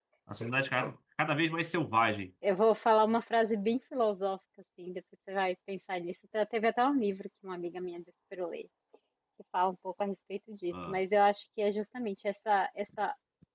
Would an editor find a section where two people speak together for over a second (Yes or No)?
No